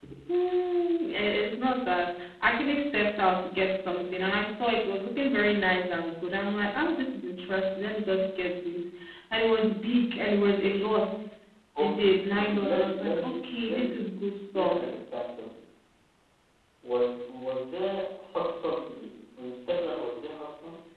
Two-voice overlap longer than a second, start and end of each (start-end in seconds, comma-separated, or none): 11.8-13.3